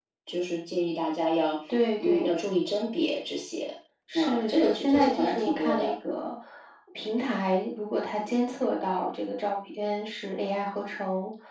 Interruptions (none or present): present